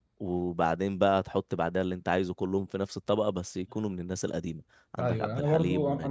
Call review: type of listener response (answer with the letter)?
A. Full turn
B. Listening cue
A